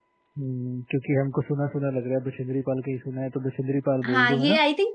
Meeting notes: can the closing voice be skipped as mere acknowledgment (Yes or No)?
No